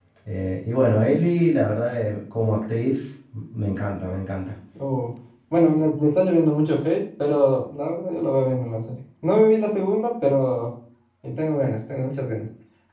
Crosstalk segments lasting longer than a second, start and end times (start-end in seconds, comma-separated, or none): none